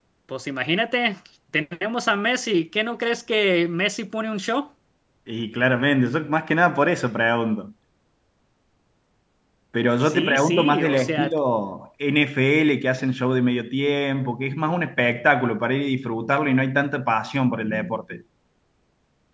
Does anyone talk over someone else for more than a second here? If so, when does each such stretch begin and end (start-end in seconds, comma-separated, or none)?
10.1-11.3